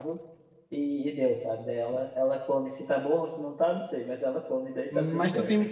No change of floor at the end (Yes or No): No